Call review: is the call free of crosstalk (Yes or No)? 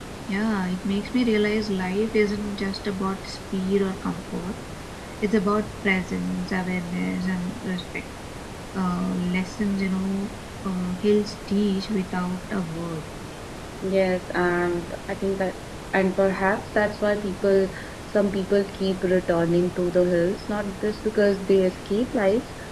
Yes